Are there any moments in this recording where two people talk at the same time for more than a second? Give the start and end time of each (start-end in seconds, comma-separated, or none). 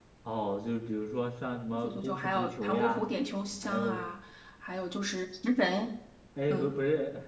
1.7-3.0